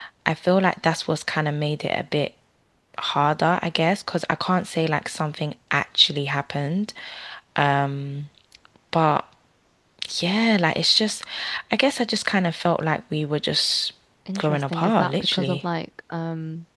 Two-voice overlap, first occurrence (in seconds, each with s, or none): 14.4 s